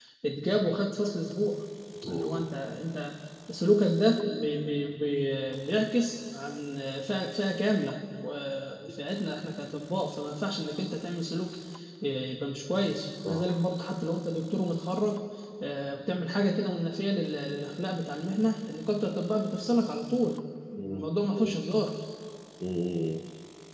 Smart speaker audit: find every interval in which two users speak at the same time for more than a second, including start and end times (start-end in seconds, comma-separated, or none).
none